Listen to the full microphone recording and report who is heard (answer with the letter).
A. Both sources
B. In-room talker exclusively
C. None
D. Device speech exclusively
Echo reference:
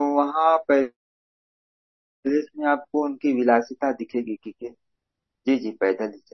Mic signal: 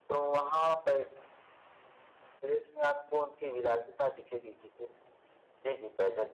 D